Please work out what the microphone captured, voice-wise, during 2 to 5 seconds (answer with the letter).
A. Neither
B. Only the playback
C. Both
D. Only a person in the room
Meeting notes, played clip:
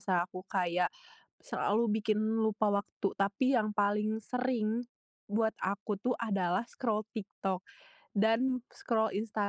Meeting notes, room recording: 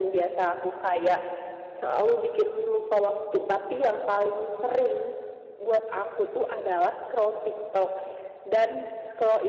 B